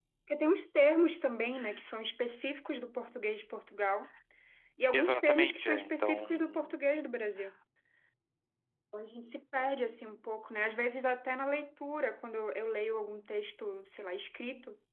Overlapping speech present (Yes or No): Yes